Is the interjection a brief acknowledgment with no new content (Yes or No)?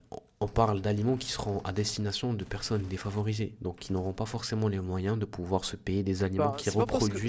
No